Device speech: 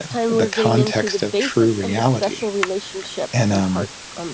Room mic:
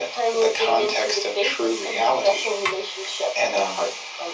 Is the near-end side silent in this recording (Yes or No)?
Yes